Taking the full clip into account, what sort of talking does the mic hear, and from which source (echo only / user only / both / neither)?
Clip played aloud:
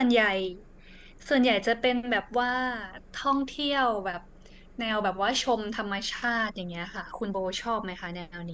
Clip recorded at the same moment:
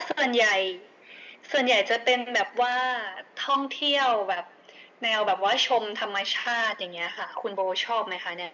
echo only